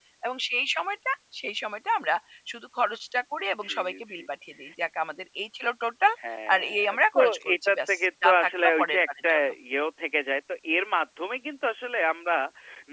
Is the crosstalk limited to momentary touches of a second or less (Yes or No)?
No